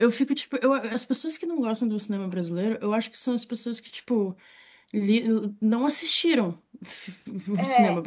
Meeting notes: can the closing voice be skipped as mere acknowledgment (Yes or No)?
Yes